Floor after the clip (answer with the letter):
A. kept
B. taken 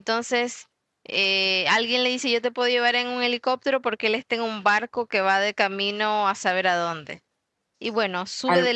B